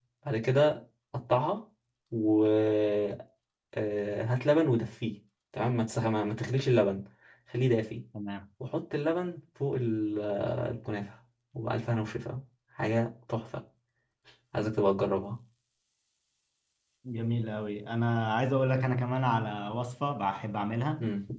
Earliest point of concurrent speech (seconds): none

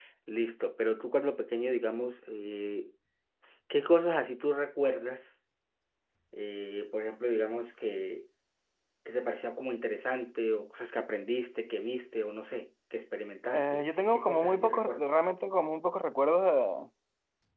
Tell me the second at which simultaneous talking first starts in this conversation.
13.5 s

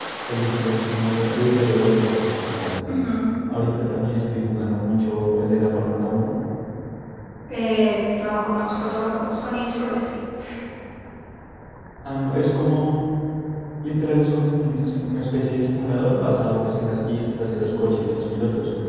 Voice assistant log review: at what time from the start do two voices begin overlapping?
none

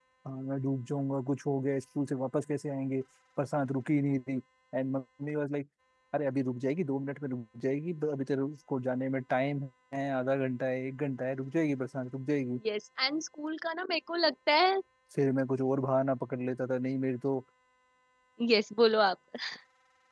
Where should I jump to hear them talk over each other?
none

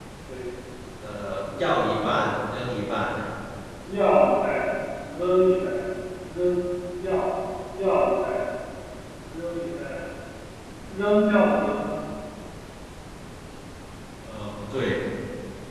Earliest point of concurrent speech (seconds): none

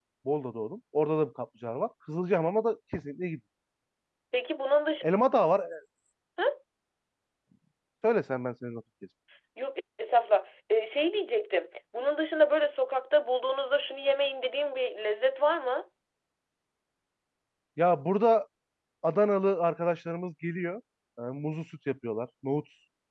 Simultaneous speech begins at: none

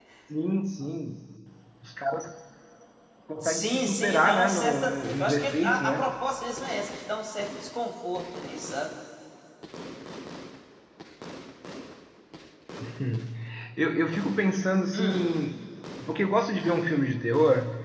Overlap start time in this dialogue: 3.4 s

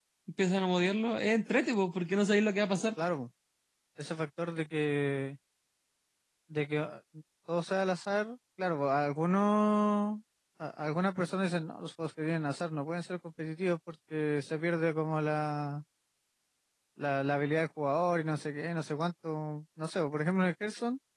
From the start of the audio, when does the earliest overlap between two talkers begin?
none

